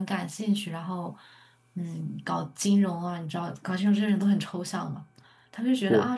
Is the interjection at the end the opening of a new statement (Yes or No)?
No